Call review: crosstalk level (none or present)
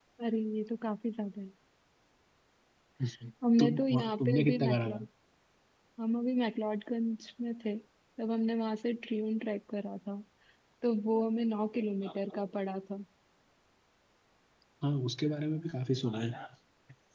present